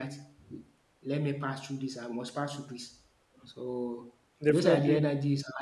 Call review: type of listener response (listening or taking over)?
listening